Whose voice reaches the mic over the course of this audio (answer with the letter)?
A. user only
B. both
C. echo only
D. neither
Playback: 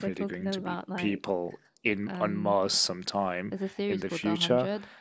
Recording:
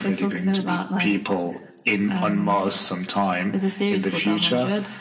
C